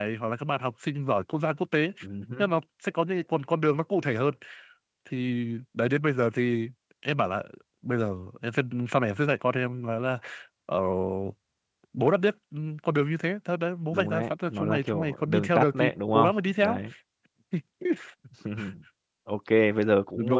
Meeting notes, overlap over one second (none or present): present